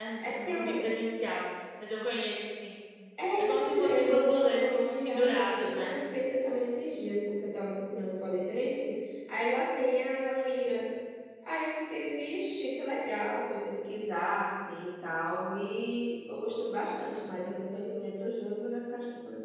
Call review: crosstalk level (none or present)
present